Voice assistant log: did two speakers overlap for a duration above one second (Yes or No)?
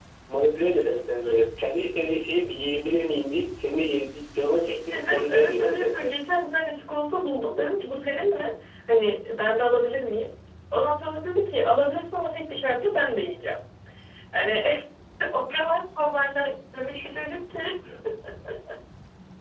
Yes